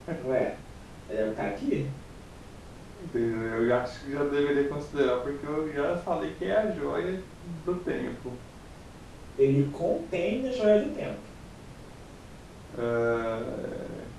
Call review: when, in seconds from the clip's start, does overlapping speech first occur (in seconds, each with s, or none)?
none